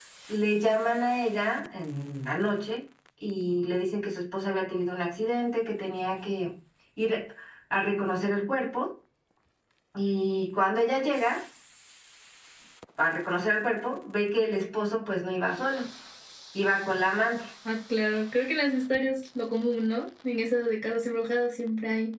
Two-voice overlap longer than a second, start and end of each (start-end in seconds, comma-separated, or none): none